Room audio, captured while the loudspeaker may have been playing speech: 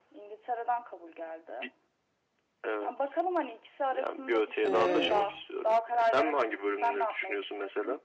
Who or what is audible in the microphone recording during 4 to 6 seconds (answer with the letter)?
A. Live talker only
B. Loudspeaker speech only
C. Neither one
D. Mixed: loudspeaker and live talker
D